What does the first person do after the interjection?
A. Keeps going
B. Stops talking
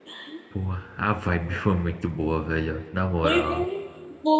B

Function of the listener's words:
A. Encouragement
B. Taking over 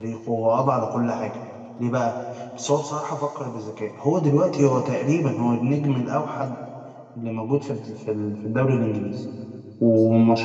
A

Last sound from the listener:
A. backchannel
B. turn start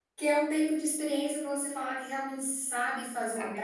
A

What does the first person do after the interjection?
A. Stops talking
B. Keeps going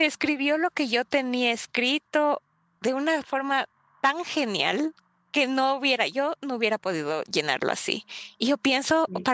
B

